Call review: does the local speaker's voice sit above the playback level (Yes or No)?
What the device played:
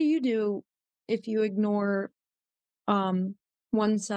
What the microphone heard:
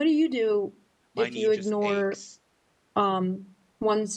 No